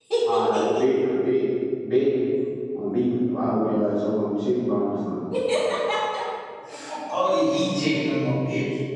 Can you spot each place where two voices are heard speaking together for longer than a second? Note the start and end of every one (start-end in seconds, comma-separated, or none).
none